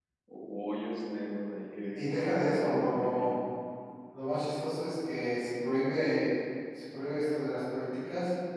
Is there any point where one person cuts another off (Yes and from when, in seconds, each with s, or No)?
Yes, from 1.9 s